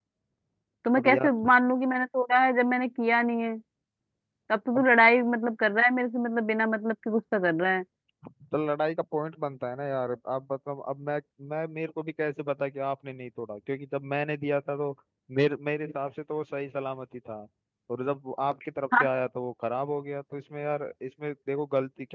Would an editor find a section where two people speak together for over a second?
No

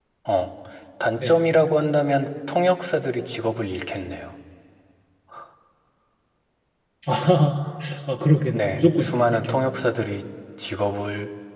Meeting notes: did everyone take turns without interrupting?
No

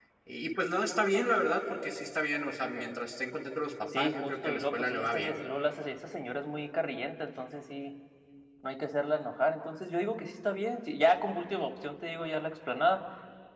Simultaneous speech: Yes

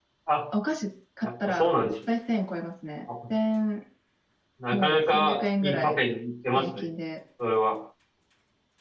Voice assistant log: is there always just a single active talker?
No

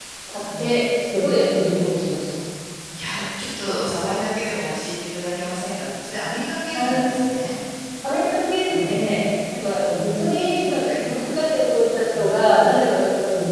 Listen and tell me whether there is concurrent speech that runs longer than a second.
No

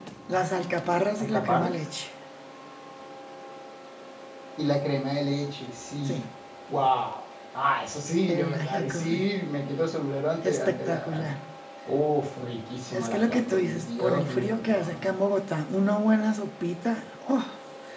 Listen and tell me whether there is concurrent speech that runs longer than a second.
Yes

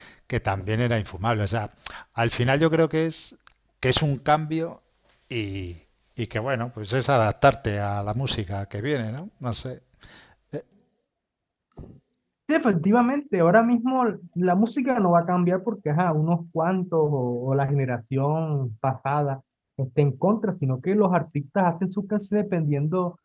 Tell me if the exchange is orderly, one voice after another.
Yes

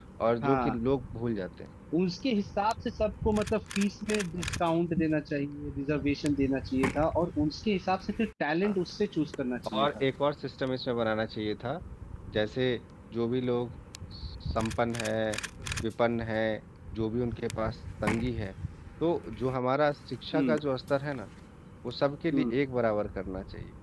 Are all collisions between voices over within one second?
Yes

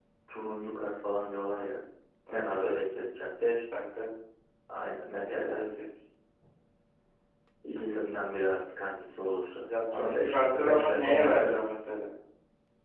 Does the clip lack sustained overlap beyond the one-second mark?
No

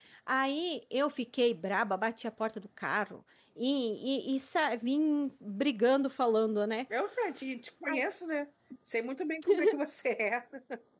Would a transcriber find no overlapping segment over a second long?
Yes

